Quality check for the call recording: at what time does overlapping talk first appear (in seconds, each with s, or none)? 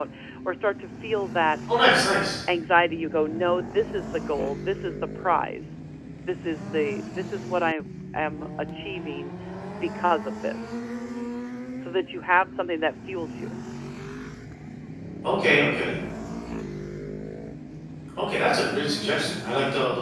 none